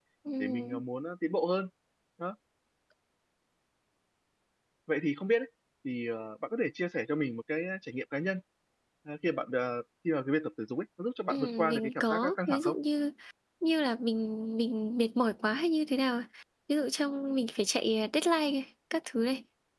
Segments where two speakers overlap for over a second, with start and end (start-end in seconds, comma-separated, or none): 11.3-12.8